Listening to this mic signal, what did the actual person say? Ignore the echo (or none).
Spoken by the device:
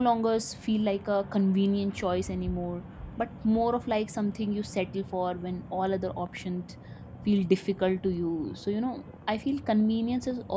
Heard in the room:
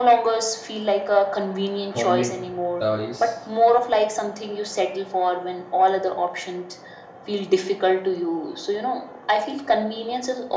homemade thalis